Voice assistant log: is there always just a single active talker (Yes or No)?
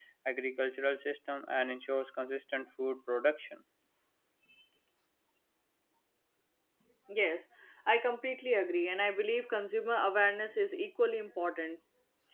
Yes